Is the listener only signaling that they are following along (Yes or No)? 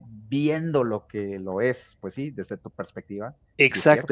No